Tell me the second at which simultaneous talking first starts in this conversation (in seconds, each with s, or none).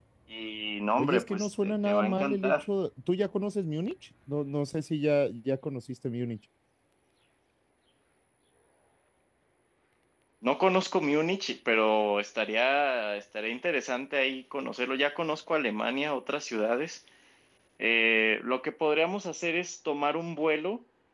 1.0 s